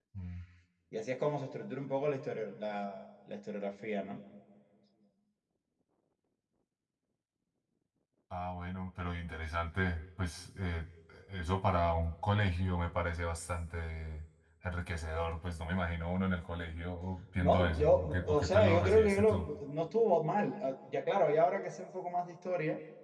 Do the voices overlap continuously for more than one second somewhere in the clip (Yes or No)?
Yes